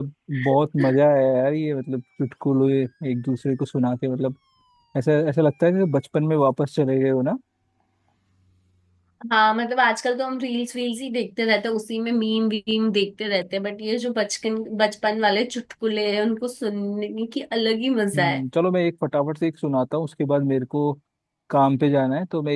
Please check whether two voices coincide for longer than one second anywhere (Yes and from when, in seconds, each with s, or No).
No